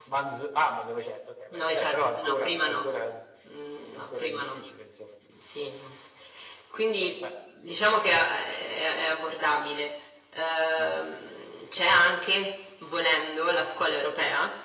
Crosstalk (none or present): present